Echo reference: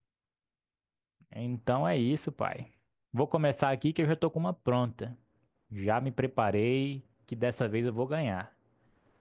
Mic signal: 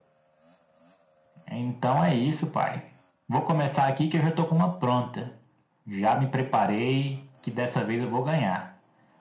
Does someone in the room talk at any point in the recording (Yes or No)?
No